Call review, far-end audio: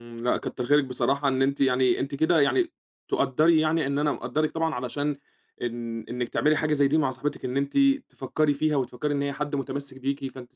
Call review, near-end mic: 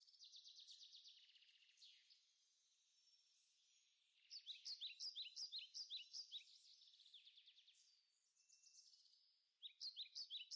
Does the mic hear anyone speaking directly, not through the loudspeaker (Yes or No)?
No